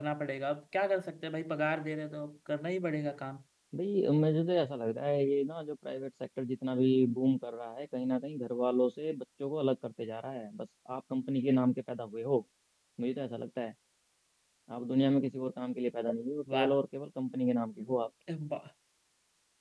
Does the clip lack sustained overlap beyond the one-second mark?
Yes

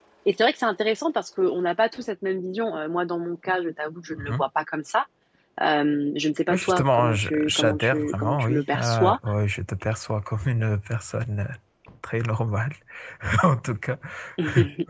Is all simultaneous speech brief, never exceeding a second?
No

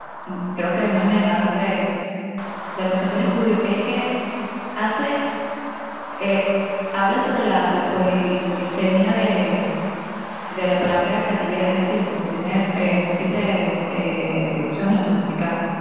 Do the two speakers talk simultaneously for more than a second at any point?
No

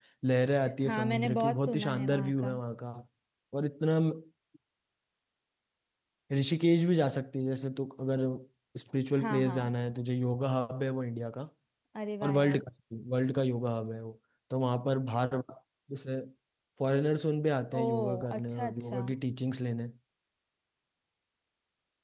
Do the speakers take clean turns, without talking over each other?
No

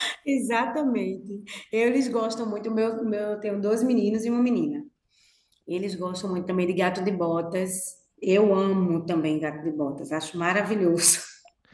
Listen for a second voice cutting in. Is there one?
No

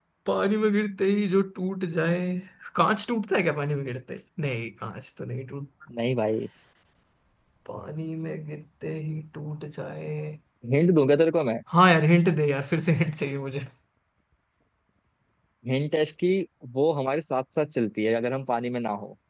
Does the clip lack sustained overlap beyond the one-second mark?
Yes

